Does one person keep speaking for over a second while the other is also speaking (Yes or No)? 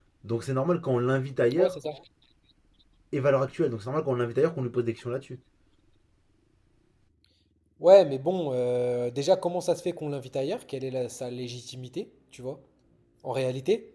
No